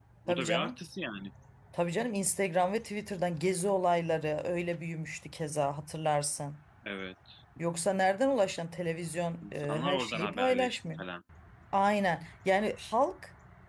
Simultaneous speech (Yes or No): Yes